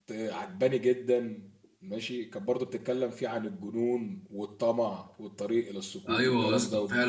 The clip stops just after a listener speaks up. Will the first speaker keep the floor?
No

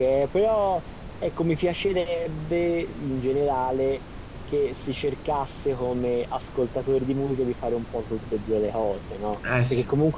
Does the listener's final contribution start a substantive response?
No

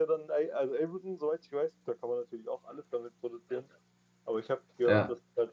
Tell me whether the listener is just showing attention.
Yes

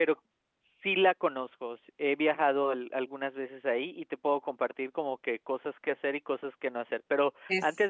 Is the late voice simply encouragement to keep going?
Yes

